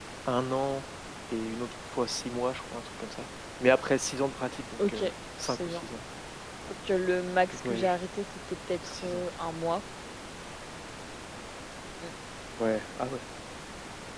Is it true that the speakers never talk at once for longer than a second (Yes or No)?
Yes